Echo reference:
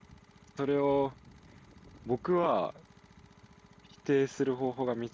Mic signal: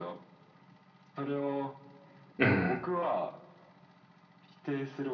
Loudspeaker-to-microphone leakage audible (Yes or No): Yes